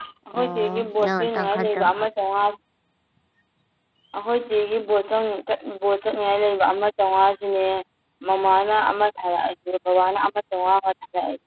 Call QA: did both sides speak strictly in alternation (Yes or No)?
No